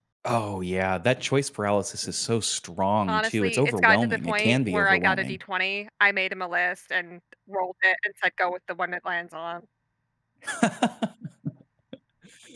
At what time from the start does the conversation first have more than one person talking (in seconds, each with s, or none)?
3.1 s